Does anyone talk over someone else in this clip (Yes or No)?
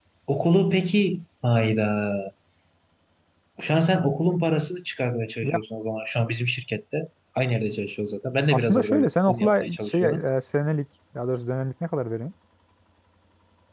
Yes